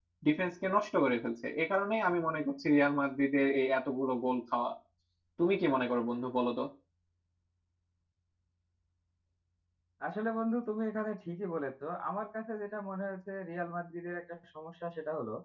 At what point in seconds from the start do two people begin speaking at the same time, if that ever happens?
none

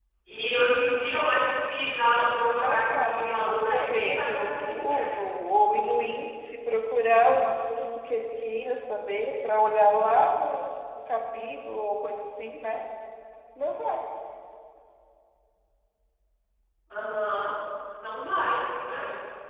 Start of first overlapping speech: 2.5 s

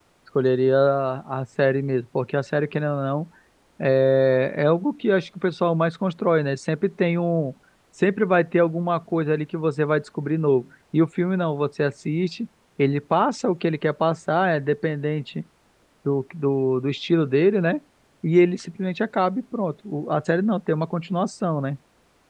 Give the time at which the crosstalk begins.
none

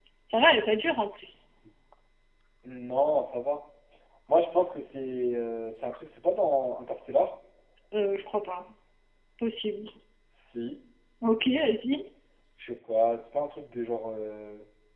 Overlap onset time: none

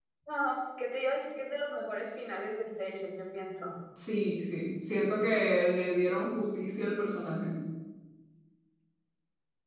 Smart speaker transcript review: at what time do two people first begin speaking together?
none

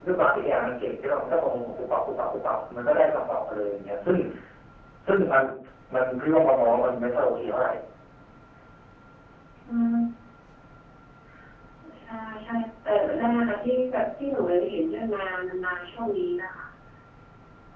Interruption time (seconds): none

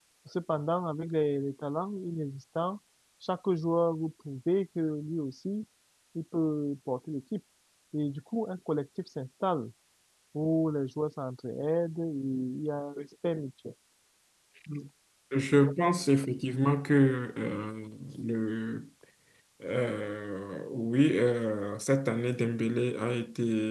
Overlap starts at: none

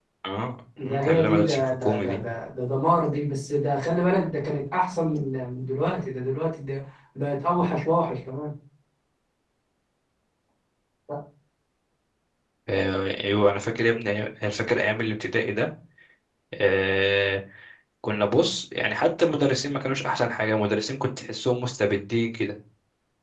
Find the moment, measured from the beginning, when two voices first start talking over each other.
0.8 s

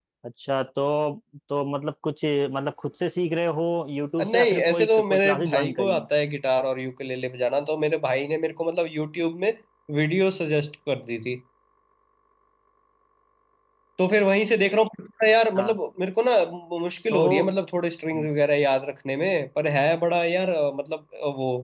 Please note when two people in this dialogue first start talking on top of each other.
4.2 s

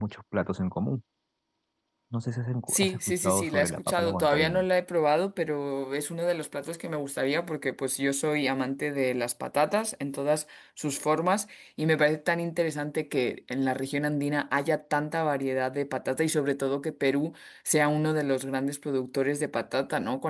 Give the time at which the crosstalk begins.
2.7 s

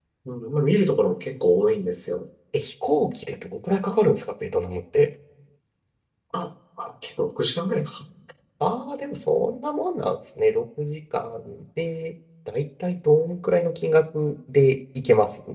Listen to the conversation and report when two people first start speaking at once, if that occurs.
none

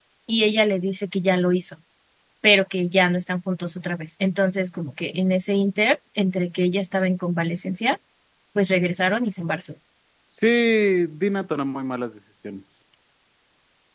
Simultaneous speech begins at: none

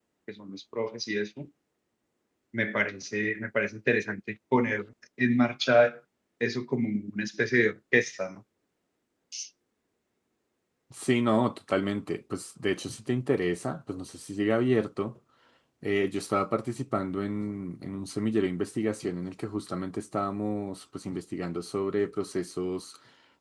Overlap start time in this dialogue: none

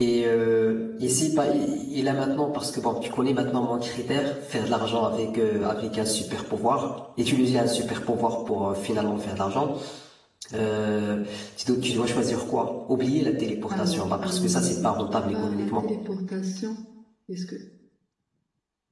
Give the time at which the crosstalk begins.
13.7 s

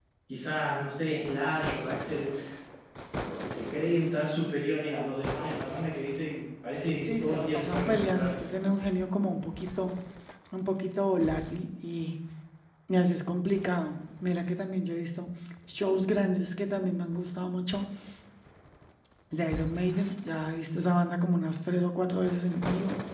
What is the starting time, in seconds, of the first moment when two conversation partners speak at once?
7.0 s

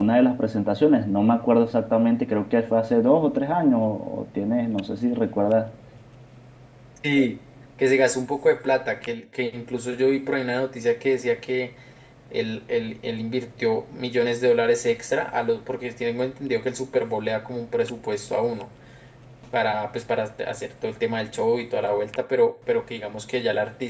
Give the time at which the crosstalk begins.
none

